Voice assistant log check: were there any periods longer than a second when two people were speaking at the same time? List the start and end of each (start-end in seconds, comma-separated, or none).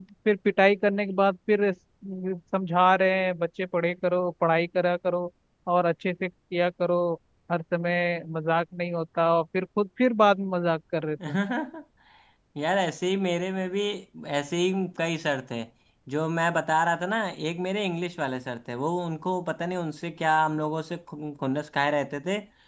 none